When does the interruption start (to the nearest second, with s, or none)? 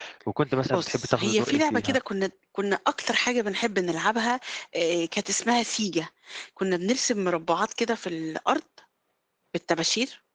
1 s